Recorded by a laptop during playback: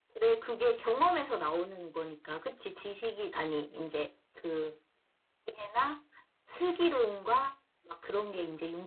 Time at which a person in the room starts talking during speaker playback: none

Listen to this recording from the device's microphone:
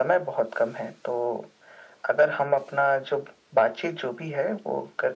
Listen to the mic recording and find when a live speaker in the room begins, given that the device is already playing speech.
none

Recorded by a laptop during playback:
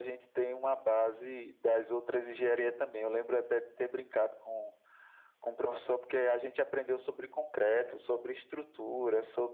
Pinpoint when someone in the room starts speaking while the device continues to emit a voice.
none

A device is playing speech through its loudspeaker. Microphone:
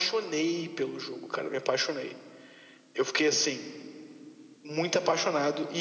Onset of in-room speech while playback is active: none

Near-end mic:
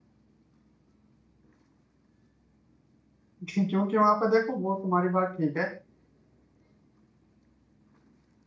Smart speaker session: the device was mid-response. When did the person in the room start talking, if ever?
3.5 s

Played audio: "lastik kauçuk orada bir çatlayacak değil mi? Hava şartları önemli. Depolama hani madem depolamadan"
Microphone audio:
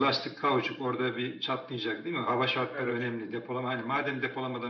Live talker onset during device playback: 2.7 s

